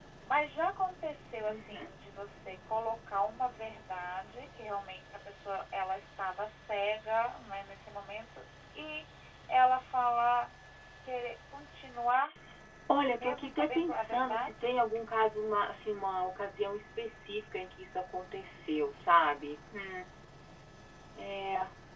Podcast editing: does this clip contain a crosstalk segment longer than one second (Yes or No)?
Yes